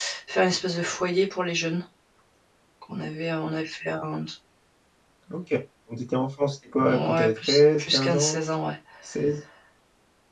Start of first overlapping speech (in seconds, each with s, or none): 6.8 s